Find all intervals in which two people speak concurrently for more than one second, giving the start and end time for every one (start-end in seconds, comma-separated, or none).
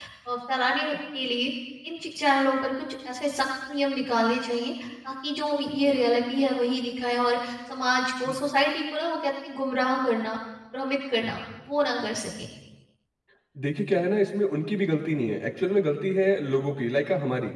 none